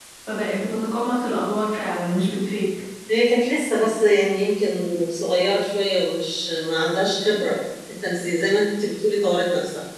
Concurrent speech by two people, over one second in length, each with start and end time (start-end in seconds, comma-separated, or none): none